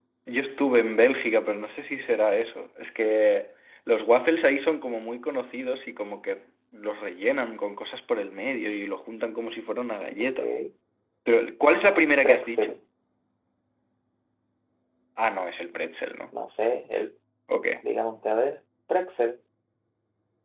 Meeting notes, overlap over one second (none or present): none